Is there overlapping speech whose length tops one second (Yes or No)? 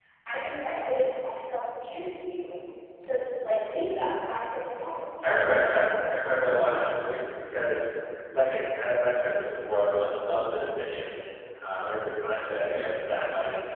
Yes